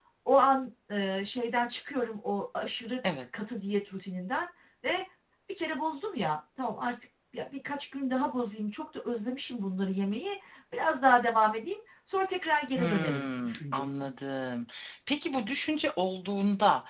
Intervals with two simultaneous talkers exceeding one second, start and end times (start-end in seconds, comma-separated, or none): 12.7-13.9